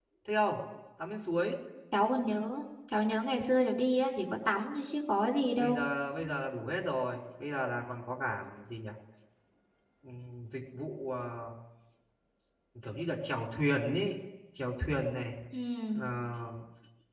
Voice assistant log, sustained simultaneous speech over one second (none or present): none